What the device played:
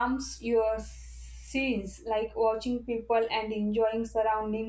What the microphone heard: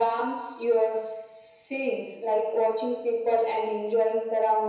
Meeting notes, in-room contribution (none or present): none